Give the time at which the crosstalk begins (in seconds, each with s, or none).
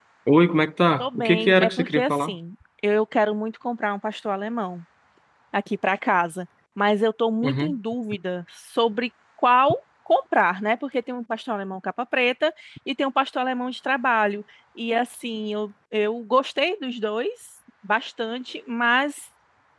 1.0 s